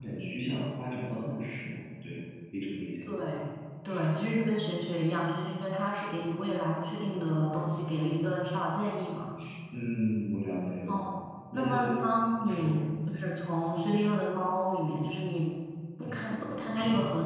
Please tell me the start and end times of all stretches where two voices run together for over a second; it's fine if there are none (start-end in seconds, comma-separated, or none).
11.5-12.8